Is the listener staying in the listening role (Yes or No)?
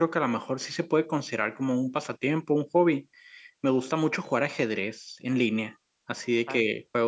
Yes